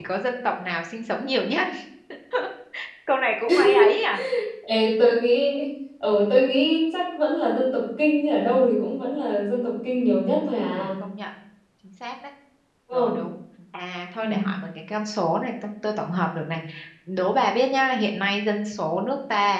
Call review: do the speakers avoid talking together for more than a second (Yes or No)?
Yes